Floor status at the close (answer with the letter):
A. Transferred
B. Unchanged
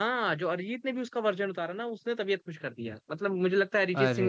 B